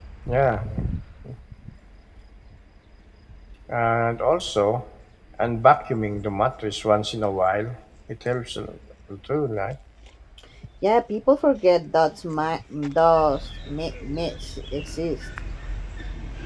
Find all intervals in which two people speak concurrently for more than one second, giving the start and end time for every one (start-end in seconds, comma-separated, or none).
none